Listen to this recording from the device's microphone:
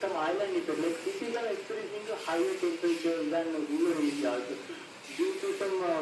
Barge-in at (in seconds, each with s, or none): none